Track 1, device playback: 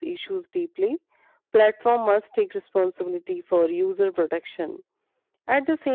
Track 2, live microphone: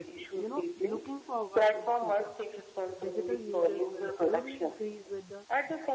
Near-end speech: present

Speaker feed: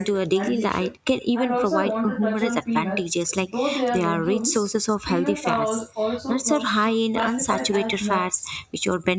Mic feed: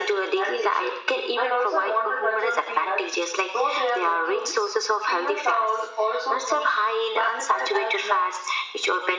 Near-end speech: none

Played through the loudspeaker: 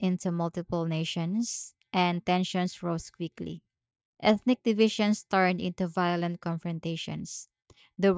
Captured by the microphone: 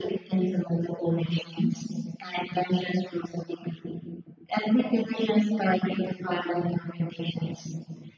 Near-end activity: none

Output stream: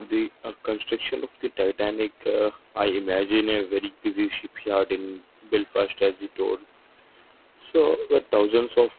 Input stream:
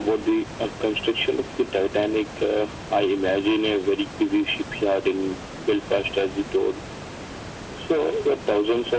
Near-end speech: none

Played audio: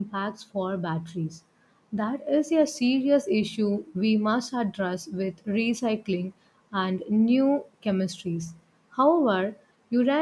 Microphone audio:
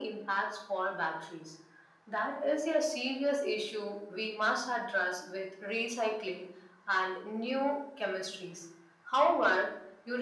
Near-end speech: none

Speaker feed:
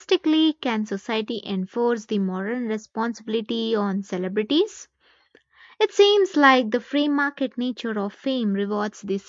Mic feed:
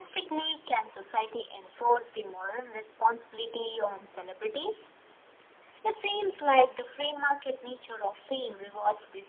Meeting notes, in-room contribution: none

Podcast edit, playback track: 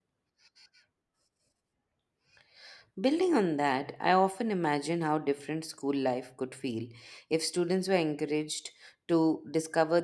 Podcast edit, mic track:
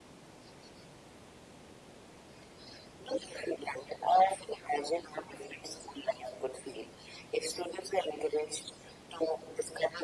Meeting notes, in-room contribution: none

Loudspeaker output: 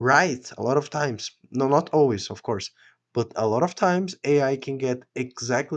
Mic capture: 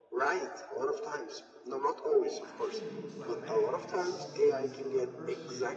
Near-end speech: present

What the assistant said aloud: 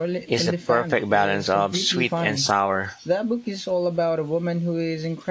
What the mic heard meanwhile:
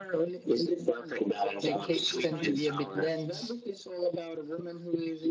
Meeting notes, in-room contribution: present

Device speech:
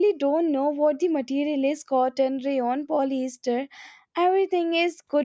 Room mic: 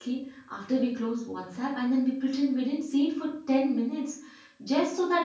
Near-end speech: present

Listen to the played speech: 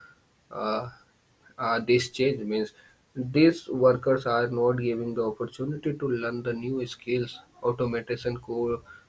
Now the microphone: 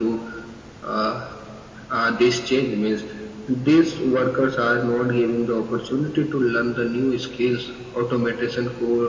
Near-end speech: none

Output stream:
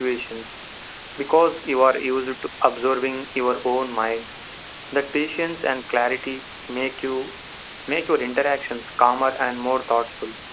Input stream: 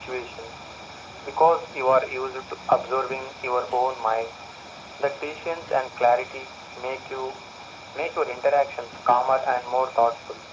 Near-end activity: none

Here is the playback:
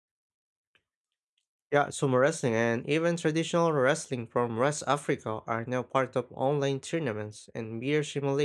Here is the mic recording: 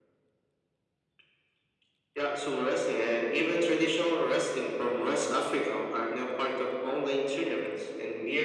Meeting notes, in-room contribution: none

